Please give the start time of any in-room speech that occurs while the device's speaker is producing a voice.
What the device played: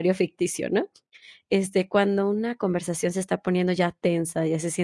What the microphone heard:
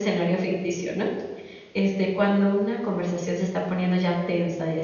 none

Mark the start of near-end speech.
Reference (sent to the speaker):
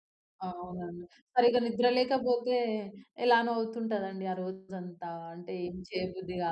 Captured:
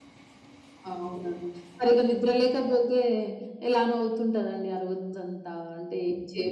none

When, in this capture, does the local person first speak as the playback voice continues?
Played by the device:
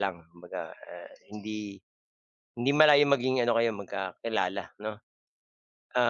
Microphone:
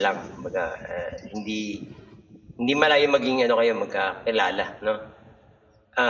none

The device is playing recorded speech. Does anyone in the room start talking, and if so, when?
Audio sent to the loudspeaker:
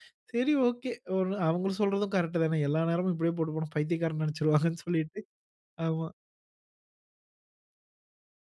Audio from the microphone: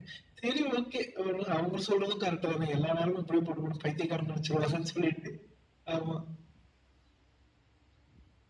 none

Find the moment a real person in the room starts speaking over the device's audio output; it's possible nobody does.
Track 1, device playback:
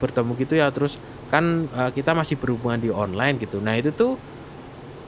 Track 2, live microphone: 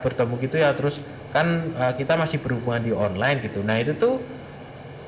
none

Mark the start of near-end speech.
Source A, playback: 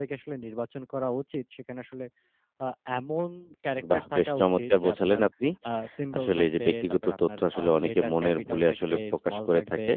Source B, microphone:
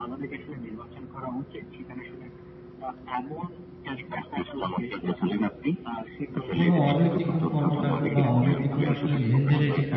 7 s

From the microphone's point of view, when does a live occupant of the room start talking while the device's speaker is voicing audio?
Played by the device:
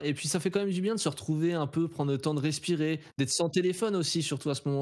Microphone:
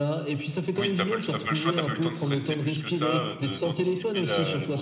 1 s

